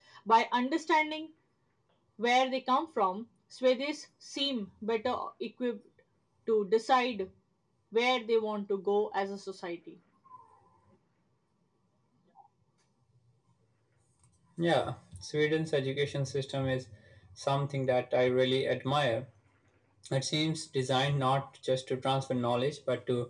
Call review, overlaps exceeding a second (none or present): none